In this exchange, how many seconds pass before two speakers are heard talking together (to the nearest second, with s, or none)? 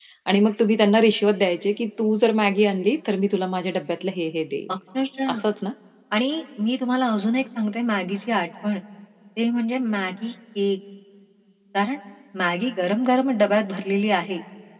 none